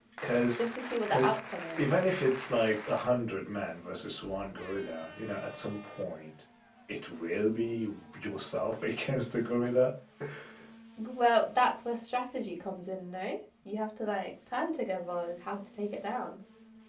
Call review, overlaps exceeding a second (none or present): none